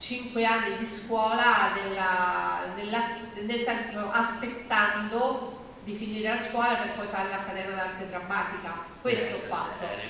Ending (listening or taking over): taking over